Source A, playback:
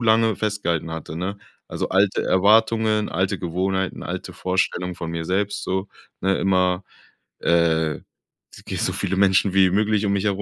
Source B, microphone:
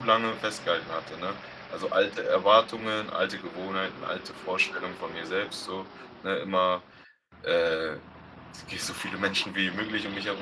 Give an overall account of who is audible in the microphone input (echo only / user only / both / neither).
echo only